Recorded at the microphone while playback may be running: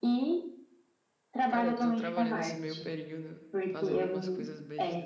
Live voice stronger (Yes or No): No